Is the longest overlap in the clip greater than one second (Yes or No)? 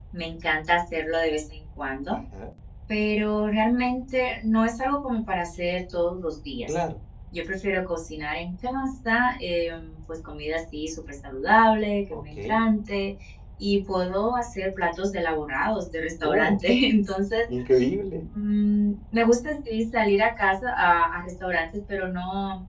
No